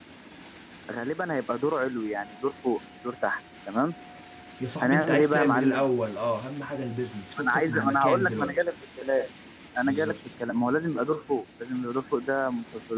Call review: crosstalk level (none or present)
present